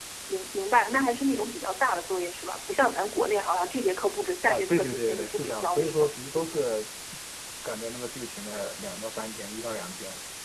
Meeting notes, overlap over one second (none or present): present